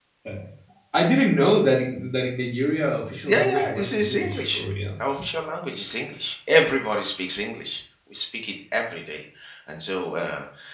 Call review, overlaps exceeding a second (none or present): present